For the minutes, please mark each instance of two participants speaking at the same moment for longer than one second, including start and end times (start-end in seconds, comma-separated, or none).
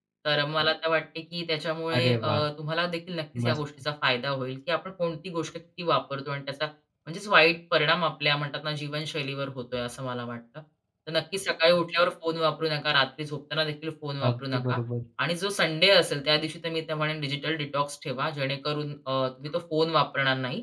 none